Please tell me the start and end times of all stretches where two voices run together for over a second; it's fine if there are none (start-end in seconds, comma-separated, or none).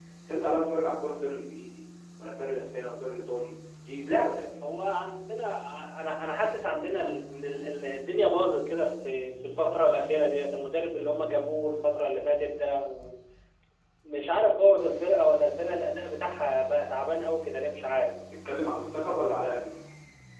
none